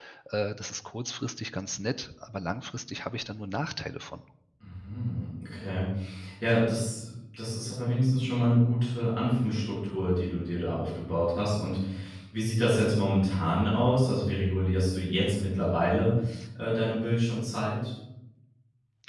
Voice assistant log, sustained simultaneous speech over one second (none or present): none